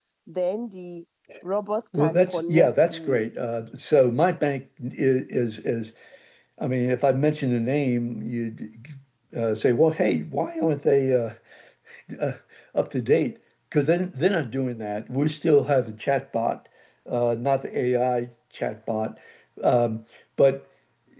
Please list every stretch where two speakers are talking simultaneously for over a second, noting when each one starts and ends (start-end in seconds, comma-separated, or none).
1.9-3.2